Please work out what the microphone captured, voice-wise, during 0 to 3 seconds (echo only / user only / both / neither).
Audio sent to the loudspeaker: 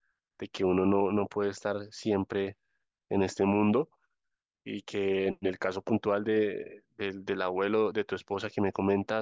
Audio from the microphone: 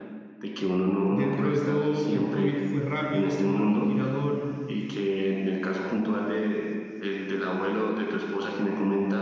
both